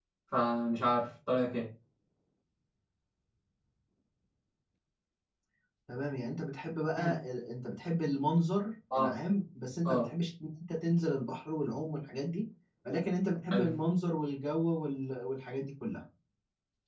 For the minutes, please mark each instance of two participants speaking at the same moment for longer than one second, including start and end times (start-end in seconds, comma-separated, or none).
none